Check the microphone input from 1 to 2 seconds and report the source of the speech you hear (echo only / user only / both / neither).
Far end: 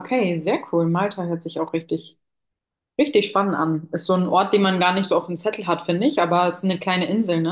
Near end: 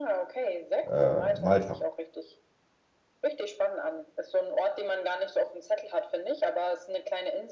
both